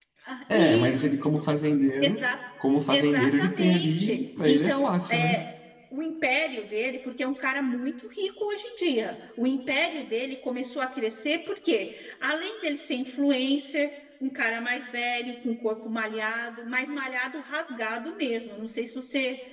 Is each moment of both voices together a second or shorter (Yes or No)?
No